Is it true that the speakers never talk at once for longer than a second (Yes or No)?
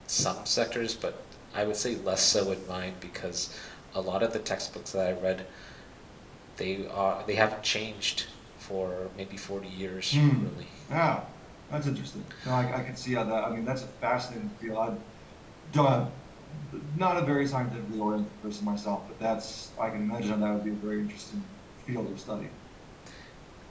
Yes